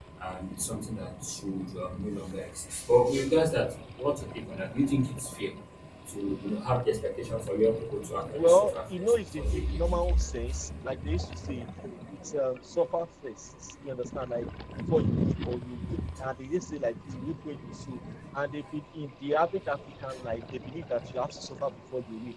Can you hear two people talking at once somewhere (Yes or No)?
Yes